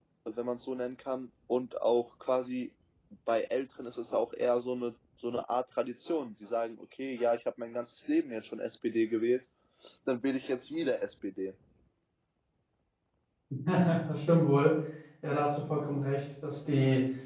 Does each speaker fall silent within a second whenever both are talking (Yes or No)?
Yes